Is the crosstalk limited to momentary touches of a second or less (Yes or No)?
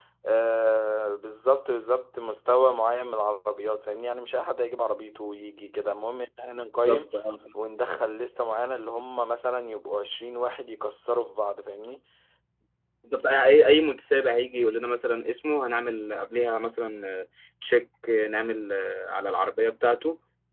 Yes